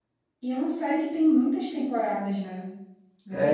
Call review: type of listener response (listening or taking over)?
taking over